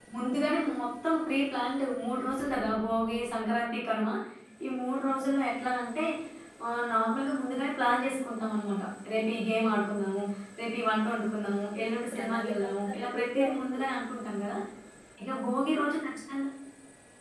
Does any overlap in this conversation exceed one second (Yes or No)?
Yes